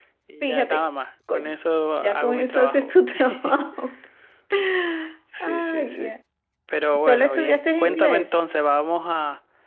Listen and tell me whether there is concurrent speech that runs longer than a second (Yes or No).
Yes